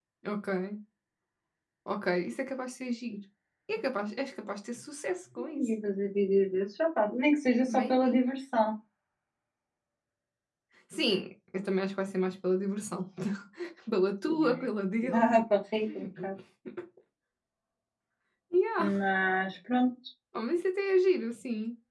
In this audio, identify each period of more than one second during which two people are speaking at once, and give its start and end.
none

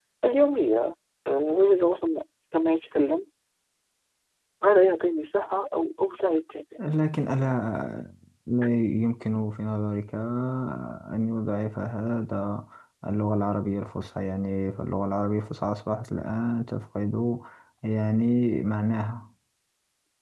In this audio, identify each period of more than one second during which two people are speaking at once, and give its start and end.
none

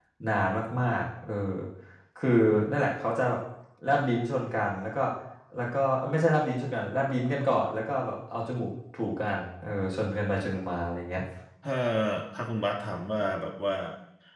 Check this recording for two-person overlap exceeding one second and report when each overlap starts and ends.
none

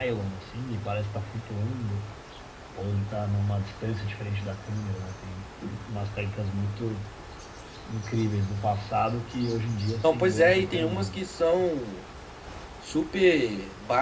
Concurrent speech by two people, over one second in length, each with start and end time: 10.0-11.2

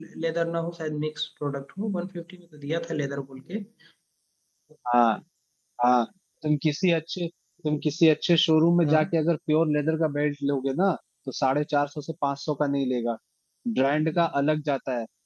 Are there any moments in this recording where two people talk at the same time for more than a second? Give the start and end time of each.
none

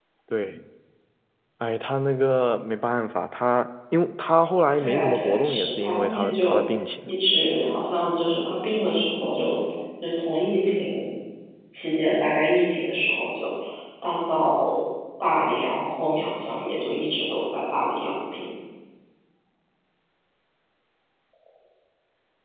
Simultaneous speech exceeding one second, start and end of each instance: 4.8-6.6

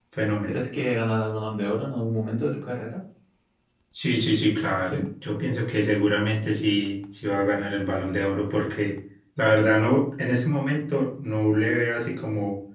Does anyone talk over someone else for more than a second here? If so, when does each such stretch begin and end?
none

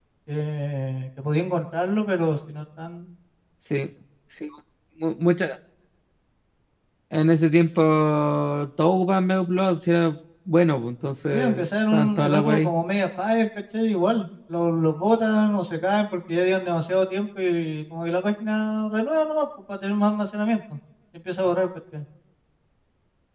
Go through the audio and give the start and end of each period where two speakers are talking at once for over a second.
11.3-12.7

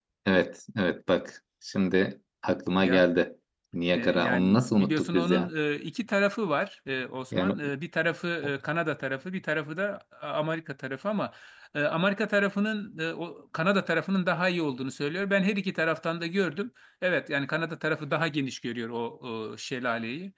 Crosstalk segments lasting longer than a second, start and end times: 4.0-5.5

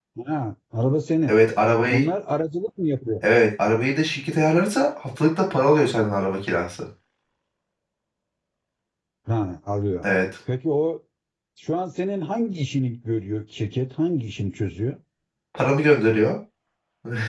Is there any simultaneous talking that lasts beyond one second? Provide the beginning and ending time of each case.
none

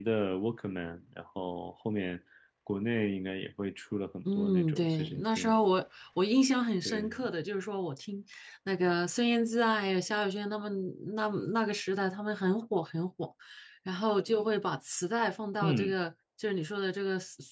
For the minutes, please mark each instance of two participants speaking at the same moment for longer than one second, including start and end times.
4.2-5.5

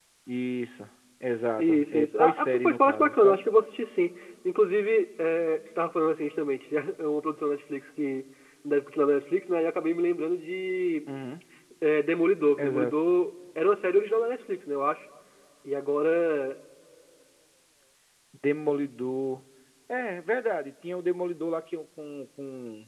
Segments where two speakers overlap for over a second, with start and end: 1.6-3.4

